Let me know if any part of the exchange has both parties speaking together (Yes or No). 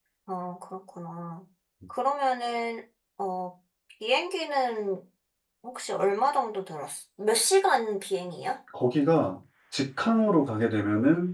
No